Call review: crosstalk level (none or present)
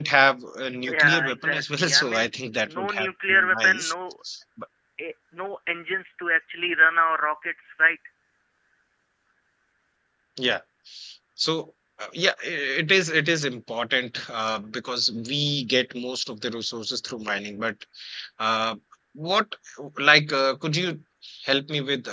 present